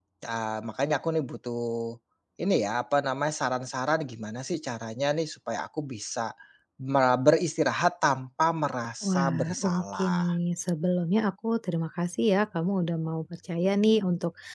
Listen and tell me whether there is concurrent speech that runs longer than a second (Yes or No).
Yes